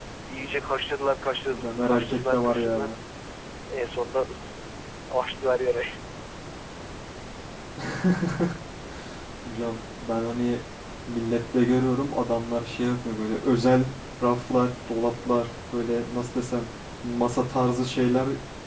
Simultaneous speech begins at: 1.5 s

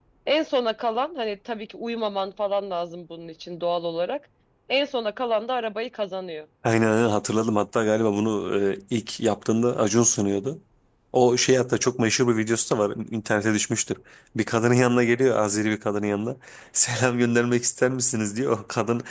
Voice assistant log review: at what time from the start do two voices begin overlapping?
none

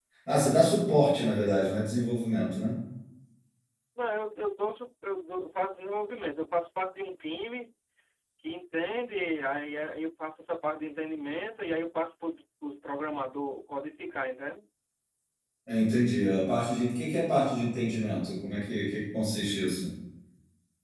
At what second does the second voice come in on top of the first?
none

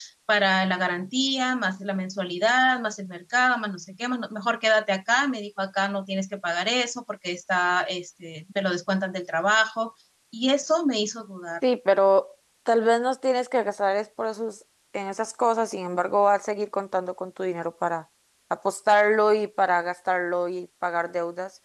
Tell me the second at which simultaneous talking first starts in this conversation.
none

